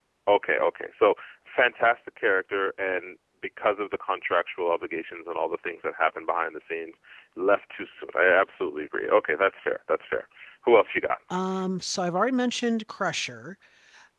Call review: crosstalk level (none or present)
none